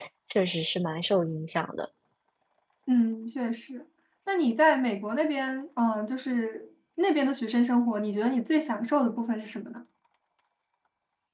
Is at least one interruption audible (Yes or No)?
No